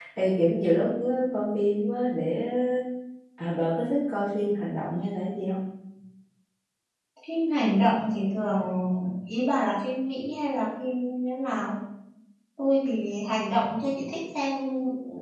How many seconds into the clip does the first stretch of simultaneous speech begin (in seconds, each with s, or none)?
none